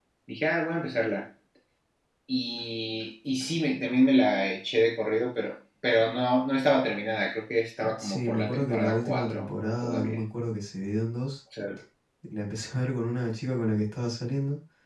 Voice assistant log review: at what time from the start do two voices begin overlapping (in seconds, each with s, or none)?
7.8 s